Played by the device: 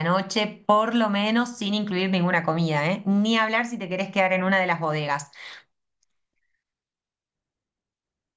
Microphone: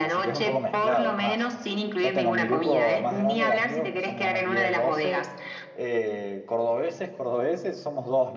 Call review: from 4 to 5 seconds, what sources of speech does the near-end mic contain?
both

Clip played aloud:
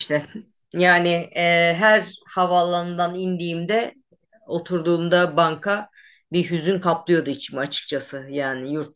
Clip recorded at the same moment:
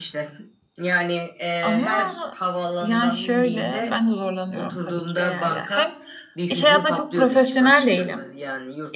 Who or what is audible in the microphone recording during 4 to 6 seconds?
both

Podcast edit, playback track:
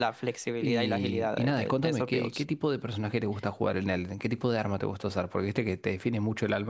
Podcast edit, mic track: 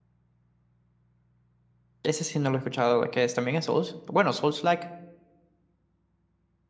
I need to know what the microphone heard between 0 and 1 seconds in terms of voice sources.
neither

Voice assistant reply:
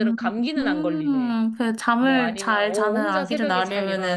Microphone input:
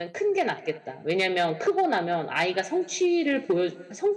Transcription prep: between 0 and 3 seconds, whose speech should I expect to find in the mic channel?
user only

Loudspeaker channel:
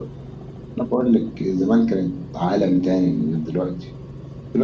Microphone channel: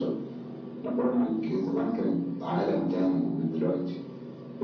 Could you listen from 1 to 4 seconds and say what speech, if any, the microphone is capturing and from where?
echo only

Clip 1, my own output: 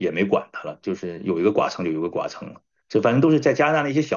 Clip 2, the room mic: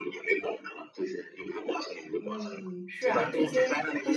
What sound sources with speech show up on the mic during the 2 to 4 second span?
both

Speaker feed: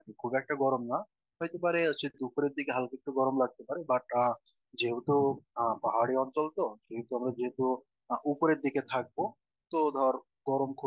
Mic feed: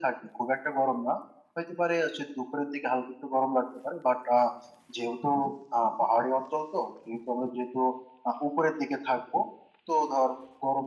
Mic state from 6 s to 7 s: echo only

